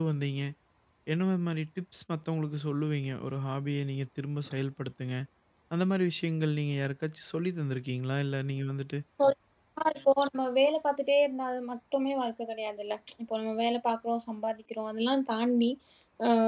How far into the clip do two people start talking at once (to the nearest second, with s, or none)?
none